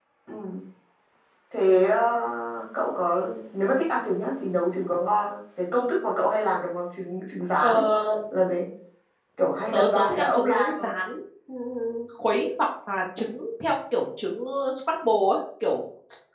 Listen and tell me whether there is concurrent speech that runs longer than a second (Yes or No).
Yes